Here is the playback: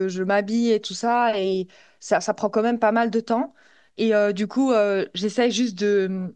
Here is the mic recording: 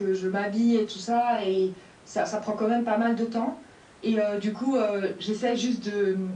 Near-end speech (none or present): none